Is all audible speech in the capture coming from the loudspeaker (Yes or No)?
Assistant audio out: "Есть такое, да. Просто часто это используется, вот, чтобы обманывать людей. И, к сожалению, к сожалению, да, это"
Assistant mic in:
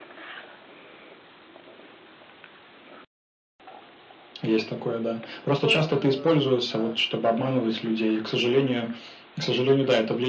No